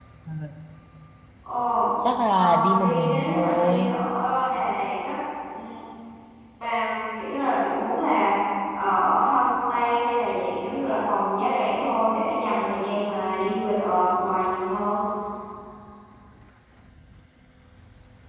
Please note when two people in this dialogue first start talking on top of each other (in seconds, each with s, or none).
2.3 s